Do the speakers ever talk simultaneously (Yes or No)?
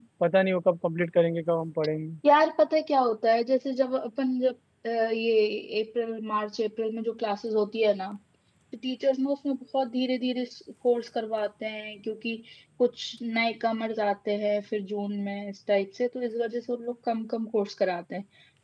No